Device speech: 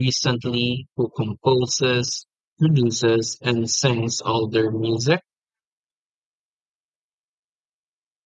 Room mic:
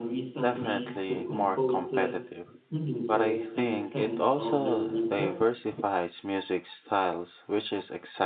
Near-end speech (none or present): present